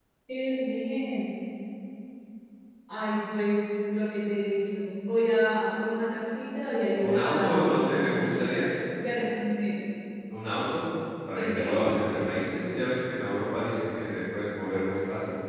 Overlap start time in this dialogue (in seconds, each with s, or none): 7.0 s